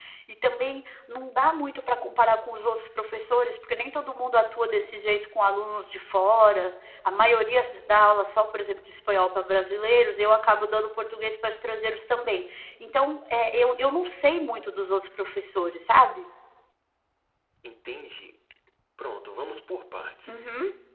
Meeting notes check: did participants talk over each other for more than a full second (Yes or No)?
No